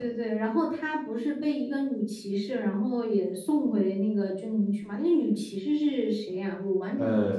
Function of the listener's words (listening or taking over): taking over